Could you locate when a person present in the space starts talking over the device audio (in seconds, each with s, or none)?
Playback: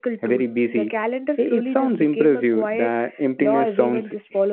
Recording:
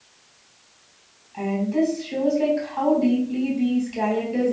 1.4 s